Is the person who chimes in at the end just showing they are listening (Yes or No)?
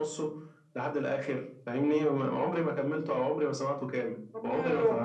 No